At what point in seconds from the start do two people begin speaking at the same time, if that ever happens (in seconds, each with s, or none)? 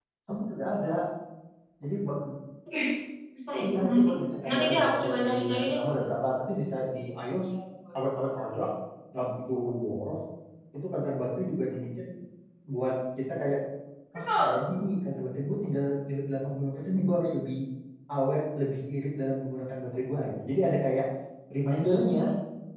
3.6 s